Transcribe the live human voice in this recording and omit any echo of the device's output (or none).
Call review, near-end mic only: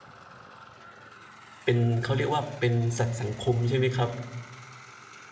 เป็น เขาเรียกว่าเป็นสัตว์สังคม ใช่ไหมครับ